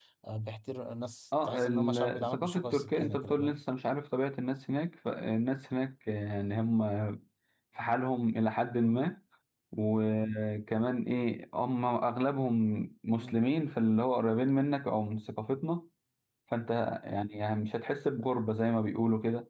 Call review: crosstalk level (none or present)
present